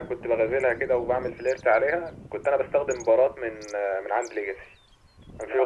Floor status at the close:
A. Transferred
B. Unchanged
B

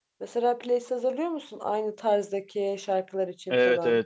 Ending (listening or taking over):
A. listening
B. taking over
B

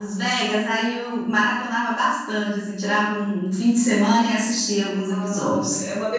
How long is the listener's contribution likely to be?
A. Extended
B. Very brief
A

